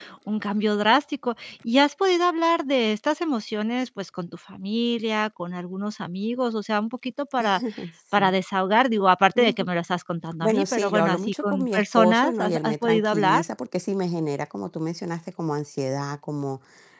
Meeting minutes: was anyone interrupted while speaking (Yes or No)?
Yes